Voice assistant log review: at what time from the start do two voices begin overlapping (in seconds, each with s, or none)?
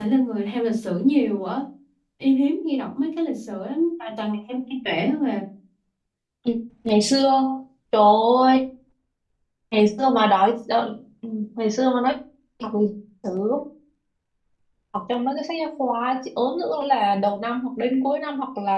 none